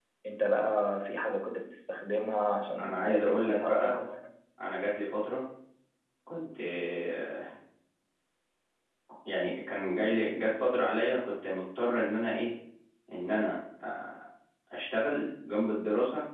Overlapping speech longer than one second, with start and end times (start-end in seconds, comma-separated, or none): 2.8-4.1